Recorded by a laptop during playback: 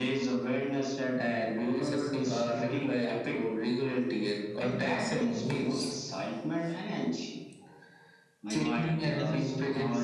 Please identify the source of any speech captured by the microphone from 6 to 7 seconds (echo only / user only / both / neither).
echo only